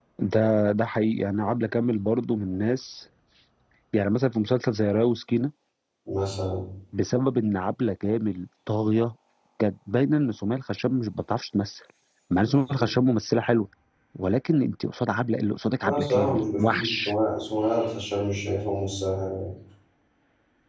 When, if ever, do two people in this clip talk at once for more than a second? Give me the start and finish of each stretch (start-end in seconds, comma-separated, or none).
15.9-17.1